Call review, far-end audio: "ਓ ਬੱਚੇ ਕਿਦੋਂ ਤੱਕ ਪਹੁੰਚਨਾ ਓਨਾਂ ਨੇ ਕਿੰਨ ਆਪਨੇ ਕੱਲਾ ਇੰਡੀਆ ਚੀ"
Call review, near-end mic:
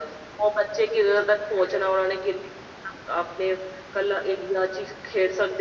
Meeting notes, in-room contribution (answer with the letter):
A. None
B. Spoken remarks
A